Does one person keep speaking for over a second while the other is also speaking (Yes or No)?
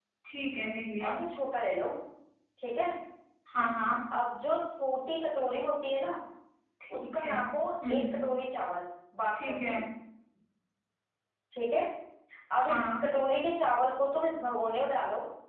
No